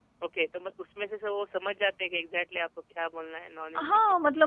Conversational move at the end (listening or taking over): taking over